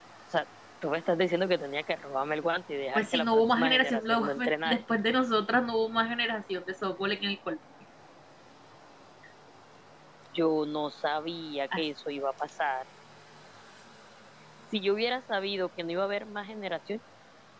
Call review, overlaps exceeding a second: present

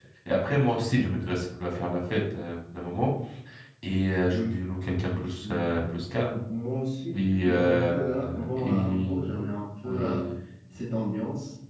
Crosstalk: present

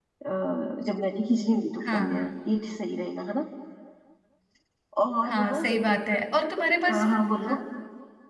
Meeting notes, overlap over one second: none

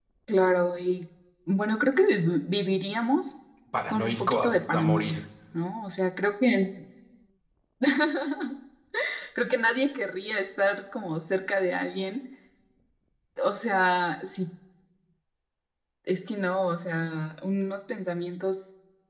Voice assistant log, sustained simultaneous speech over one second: present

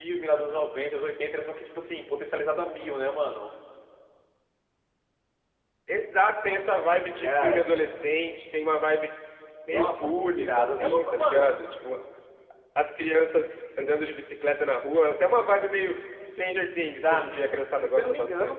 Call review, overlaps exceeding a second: present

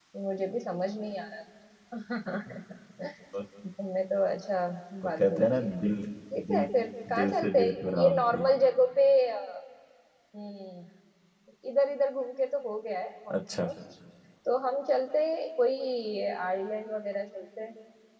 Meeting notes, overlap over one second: present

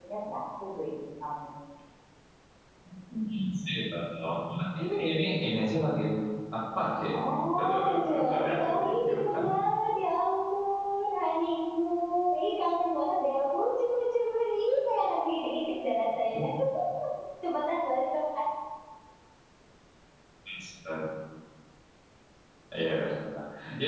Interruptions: present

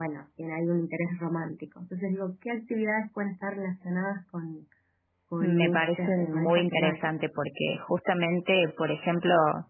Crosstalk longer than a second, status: present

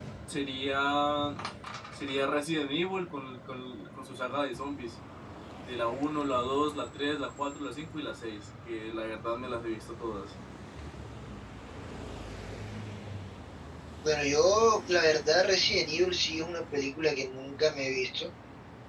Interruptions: none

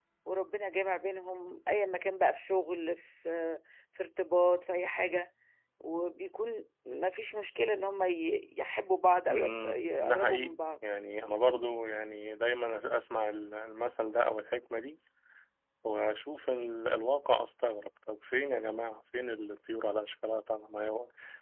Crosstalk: present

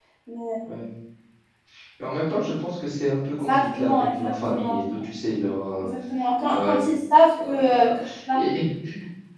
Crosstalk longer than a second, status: present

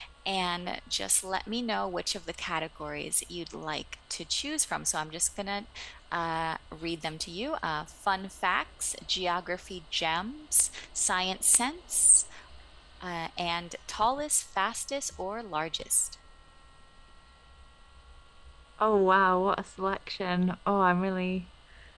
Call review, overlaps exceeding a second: none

